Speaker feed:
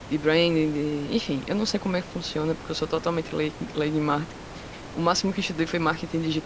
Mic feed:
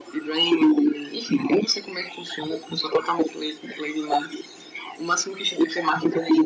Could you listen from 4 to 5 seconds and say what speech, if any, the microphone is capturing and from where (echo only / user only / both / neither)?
echo only